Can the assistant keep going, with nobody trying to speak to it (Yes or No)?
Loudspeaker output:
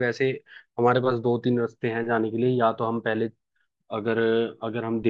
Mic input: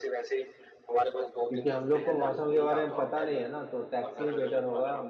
No